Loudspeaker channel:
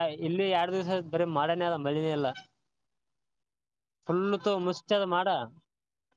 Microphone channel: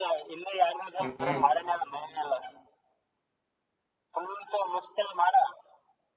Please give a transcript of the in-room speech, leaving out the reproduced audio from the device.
ಹ್ಮ್್ಮ

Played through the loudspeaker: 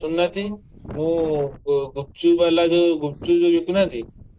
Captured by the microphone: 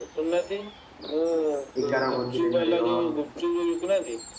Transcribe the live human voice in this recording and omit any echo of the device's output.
ଏଗାର ଭୋଜିରେ ମିଳିବ।

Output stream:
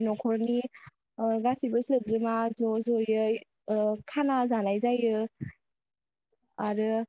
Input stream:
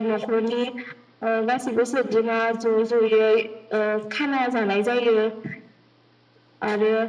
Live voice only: none

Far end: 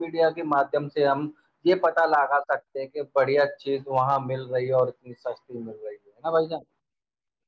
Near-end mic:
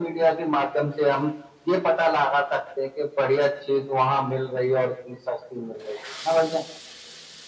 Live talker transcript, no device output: none

